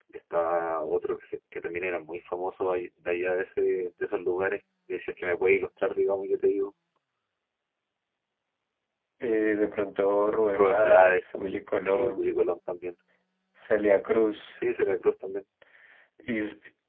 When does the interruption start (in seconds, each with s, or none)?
10.5 s